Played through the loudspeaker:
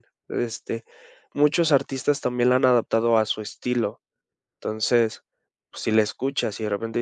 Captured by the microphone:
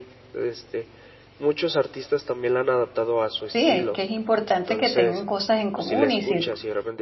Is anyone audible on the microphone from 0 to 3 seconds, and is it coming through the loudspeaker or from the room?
echo only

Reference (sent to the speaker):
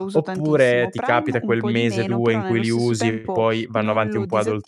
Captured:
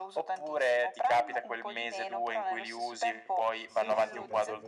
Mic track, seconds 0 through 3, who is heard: echo only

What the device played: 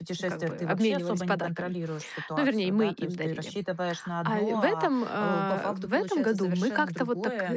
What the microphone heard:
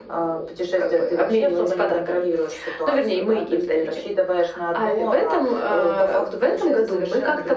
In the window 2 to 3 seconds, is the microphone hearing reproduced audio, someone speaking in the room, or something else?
echo only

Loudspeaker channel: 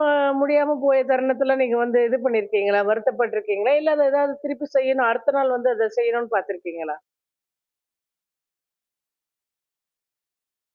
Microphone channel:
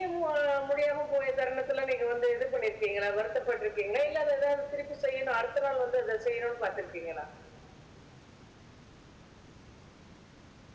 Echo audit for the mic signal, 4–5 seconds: echo only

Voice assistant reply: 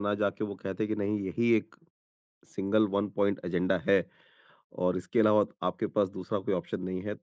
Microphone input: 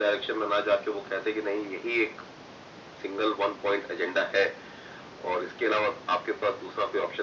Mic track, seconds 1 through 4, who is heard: echo only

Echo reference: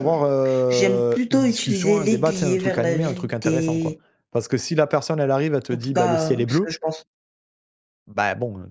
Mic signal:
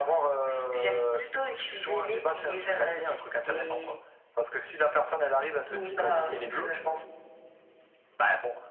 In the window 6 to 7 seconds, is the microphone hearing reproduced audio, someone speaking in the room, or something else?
both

